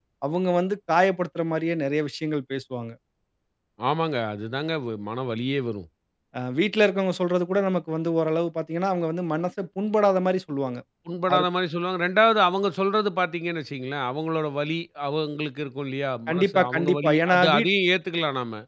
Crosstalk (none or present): present